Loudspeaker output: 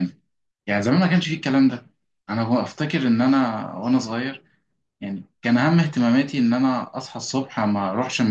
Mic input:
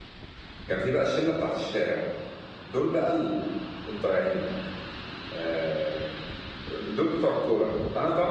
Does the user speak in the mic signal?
Yes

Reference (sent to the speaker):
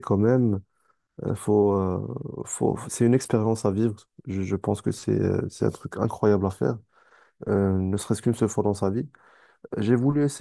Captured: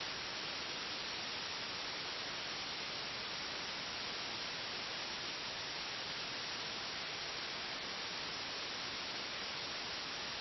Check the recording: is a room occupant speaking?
No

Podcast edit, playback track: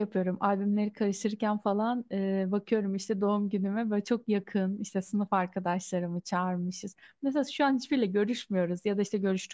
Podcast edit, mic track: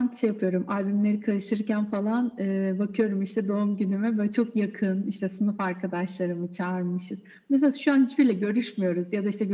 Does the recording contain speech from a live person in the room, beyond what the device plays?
No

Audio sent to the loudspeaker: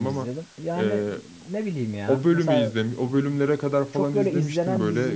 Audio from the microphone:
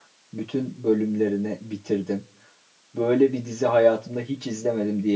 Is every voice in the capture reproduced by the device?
No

